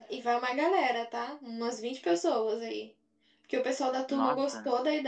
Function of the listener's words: listening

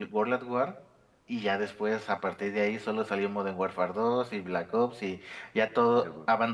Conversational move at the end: listening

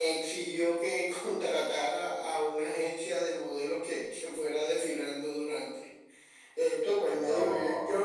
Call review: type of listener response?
listening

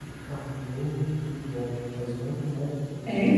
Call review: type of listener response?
listening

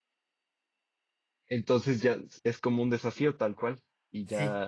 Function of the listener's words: taking over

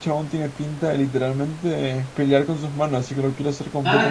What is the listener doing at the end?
taking over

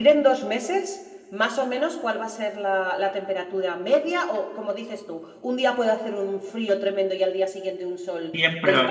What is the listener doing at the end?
taking over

